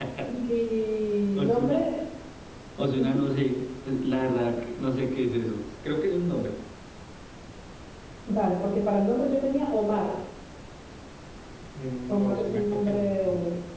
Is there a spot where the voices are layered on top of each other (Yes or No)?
Yes